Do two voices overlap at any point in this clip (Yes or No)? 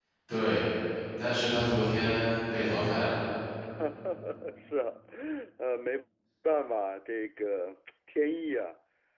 No